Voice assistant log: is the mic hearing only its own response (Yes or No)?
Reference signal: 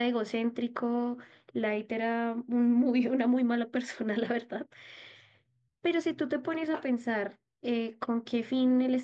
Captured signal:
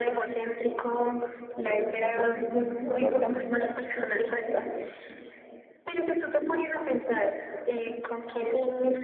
No